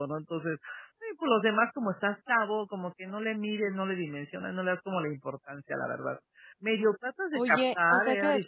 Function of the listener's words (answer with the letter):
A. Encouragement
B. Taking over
B